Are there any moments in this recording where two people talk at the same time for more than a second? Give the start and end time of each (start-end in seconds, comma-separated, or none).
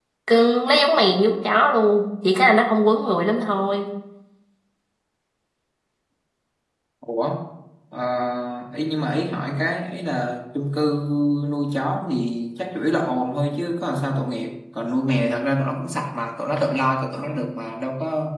none